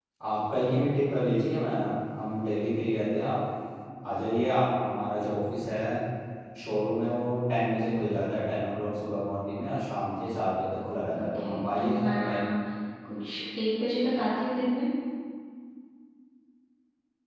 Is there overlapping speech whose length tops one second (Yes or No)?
Yes